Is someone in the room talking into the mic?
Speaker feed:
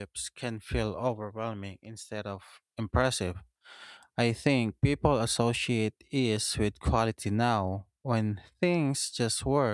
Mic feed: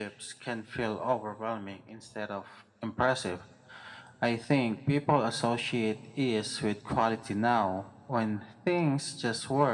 No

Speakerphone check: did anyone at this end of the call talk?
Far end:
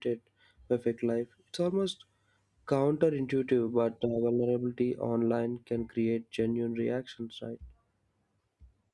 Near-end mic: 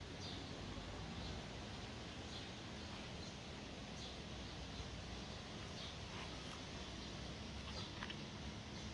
No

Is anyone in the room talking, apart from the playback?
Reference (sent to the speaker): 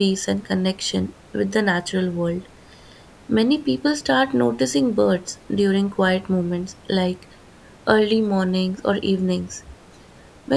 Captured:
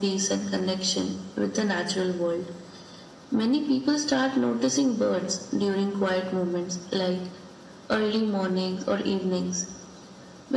No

